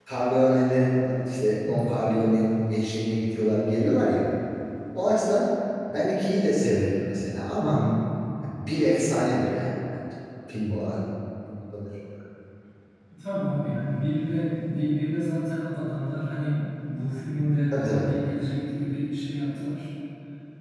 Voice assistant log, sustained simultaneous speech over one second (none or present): none